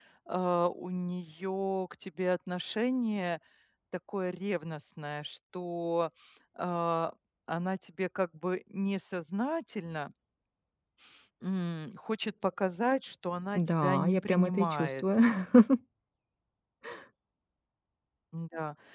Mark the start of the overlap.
13.6 s

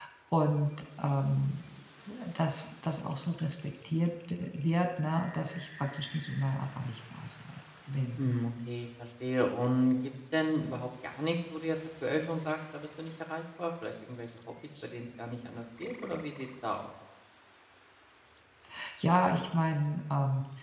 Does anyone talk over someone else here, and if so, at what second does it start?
none

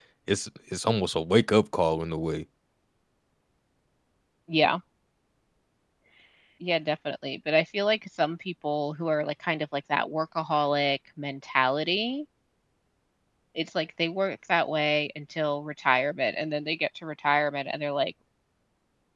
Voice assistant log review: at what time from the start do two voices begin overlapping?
none

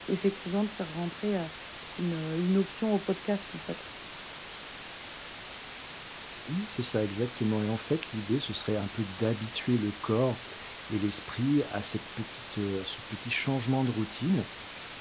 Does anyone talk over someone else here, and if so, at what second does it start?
none

